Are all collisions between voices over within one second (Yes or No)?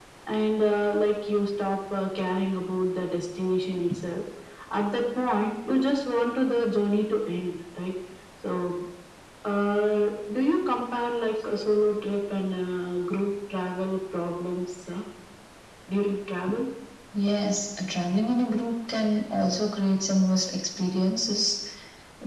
Yes